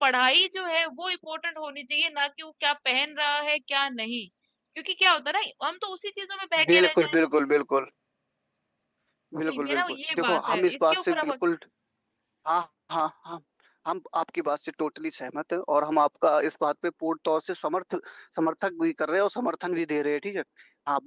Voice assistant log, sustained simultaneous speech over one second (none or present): present